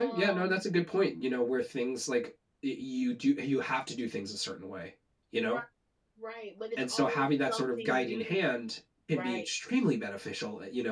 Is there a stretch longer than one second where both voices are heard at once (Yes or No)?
Yes